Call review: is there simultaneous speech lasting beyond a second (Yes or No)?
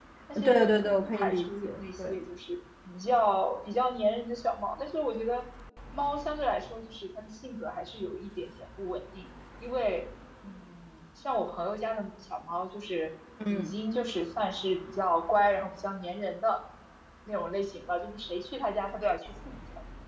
Yes